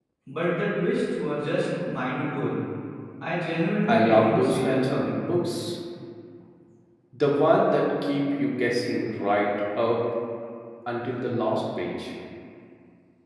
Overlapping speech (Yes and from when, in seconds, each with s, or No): Yes, from 3.9 s